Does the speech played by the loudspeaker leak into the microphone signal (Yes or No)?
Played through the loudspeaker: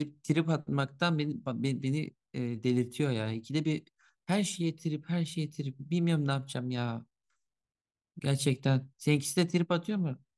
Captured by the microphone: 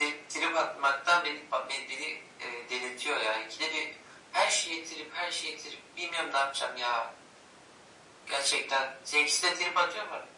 Yes